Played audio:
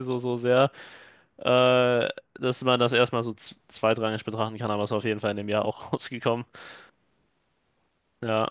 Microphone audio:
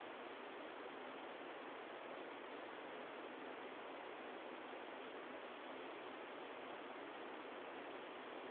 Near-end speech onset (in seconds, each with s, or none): none